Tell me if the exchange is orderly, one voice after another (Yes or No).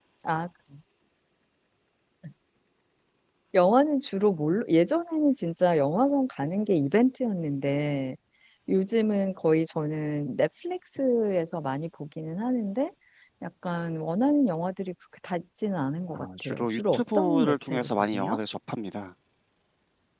No